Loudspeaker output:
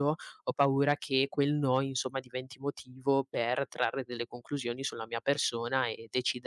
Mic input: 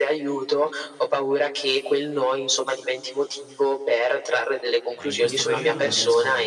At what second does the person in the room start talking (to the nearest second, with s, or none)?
5 s